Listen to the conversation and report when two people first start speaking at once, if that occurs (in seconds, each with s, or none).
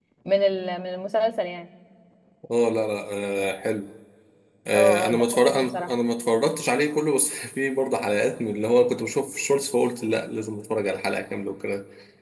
4.7 s